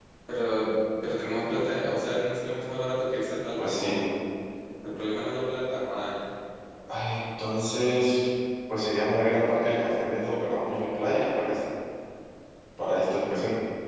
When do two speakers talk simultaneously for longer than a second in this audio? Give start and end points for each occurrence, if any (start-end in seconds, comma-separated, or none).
none